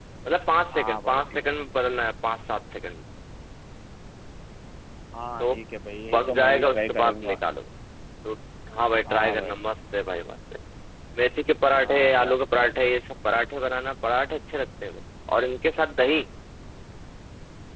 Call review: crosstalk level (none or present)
present